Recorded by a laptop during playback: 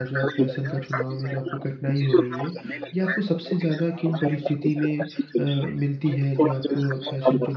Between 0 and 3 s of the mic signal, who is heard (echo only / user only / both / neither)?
both